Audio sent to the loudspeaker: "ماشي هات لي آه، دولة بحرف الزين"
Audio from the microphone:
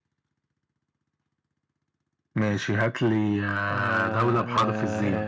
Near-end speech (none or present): present